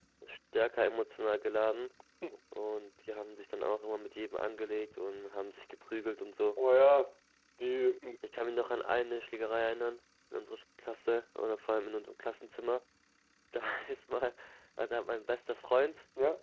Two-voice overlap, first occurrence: none

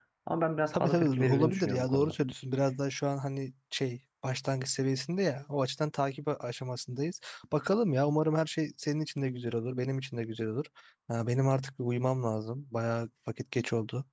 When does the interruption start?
0.7 s

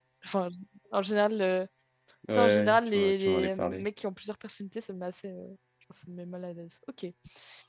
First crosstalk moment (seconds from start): 2.3 s

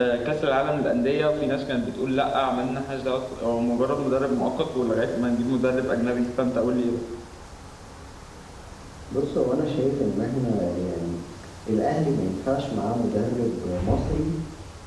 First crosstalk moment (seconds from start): none

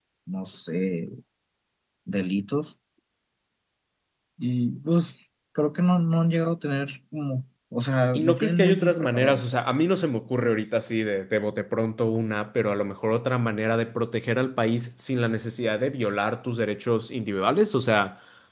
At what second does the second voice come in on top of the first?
8.2 s

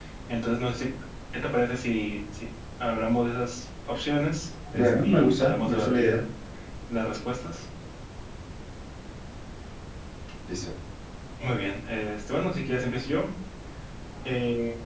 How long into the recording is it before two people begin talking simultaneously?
4.7 s

